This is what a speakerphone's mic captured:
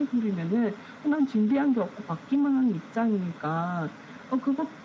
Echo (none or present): present